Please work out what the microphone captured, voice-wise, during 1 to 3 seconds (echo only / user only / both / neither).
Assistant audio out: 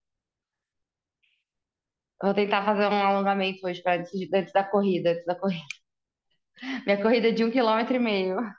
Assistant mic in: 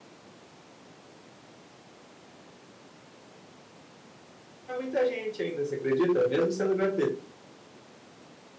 neither